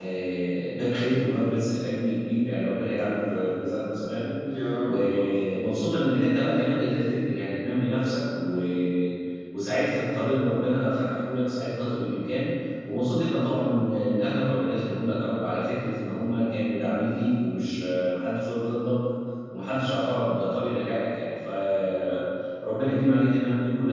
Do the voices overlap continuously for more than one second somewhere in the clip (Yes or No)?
No